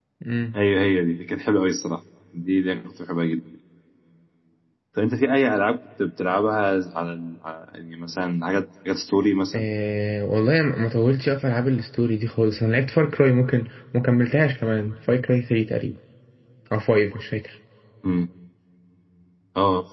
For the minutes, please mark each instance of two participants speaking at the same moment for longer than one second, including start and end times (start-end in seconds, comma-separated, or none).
none